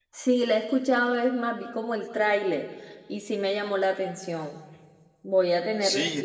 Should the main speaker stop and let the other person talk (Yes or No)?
Yes